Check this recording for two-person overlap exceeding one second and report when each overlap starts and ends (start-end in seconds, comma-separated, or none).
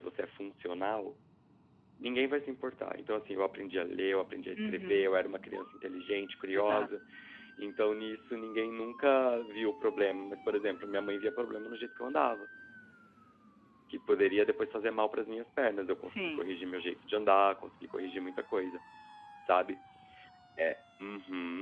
none